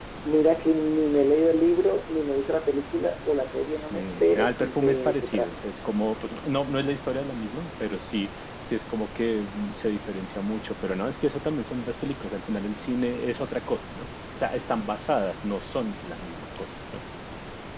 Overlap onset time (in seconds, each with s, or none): 3.7 s